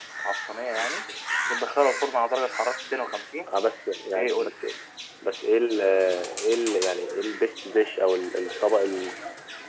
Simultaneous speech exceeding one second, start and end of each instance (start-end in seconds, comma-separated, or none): none